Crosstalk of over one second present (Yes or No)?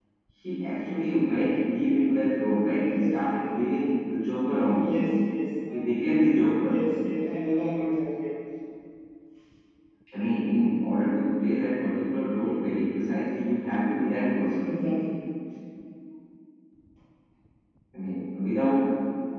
No